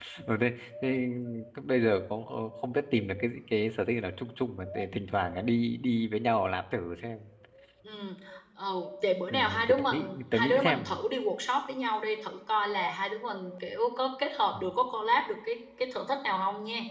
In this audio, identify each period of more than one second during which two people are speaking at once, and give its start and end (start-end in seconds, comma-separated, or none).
9.3-10.9